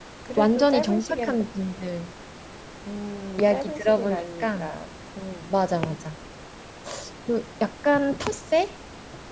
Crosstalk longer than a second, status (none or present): present